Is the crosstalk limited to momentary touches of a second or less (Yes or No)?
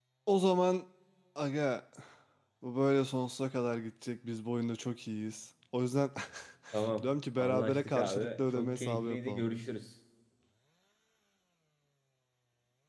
No